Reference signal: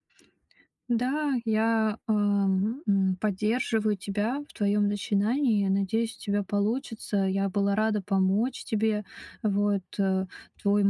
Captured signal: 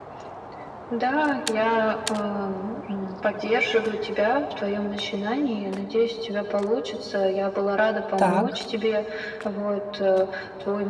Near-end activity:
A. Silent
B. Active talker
B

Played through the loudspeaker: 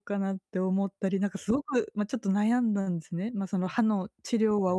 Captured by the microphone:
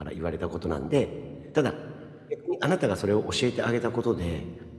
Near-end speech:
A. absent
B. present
B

